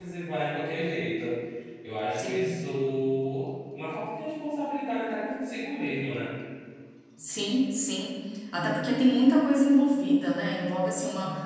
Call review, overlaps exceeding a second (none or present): none